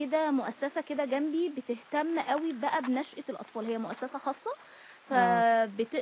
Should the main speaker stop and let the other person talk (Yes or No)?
No